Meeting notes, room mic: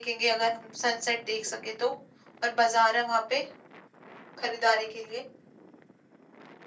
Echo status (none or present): present